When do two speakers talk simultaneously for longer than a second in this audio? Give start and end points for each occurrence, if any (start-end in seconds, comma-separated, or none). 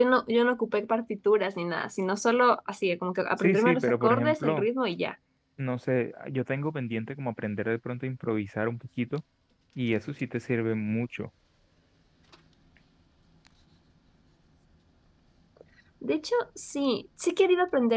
3.4-4.6